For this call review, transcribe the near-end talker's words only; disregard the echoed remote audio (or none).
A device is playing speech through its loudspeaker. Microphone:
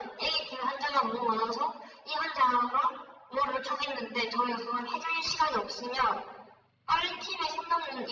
none